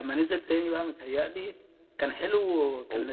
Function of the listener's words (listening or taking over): listening